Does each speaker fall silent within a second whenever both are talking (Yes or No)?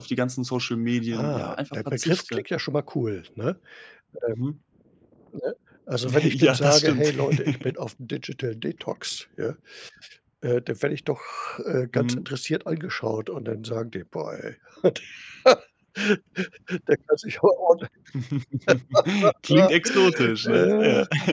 No